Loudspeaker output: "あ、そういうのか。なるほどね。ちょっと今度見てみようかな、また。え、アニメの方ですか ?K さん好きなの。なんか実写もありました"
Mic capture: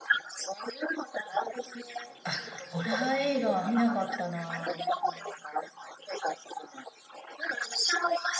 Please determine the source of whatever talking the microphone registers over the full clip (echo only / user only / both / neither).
both